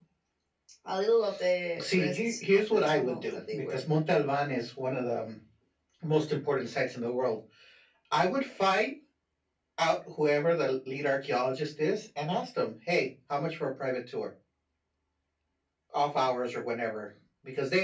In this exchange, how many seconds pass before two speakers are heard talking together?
1.8 s

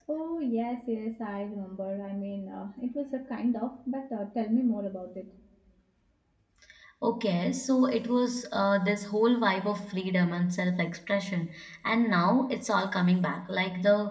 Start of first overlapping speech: none

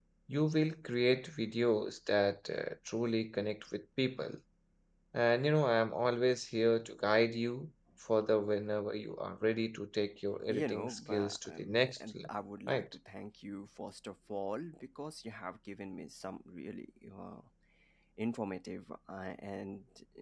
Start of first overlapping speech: 10.5 s

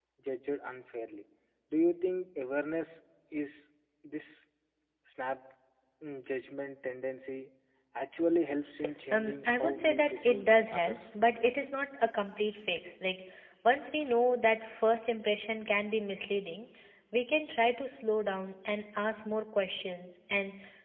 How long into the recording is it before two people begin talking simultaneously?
9.1 s

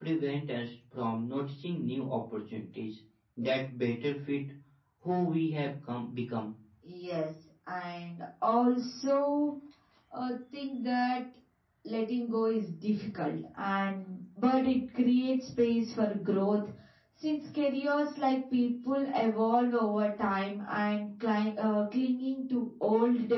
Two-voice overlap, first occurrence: none

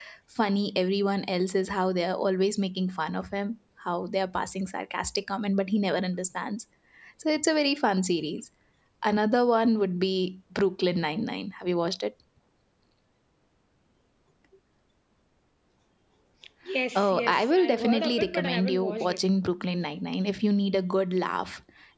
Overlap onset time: 17.0 s

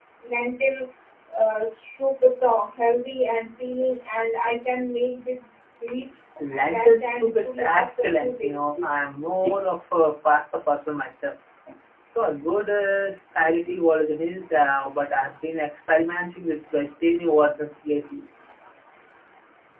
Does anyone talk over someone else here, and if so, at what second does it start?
6.7 s

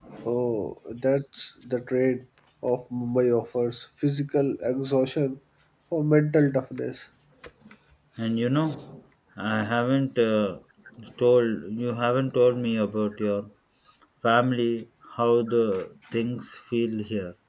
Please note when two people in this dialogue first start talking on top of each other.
none

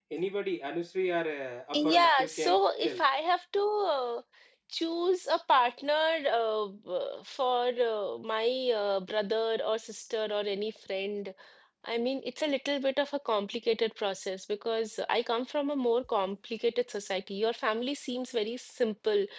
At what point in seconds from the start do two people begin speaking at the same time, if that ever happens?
1.7 s

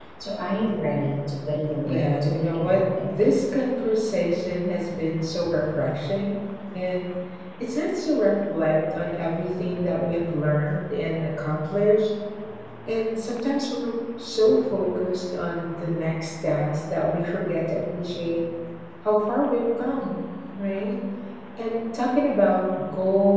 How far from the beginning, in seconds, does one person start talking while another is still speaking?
1.9 s

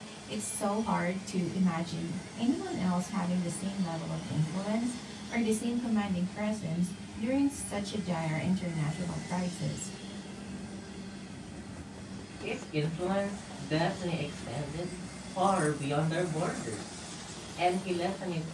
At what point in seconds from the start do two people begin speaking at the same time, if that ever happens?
none

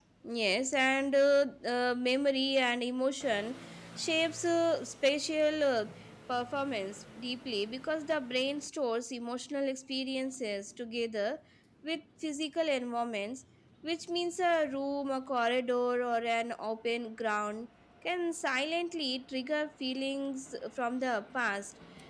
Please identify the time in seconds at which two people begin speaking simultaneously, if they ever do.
none

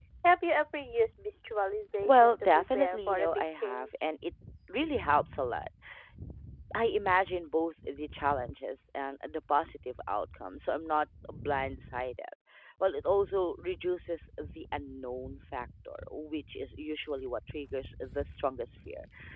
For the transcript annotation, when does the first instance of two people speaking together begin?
2.0 s

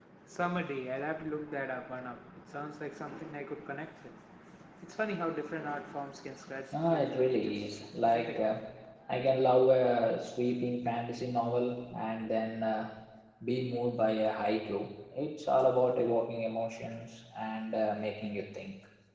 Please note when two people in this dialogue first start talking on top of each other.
6.7 s

